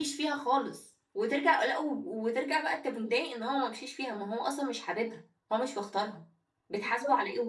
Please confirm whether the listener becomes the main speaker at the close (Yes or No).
Yes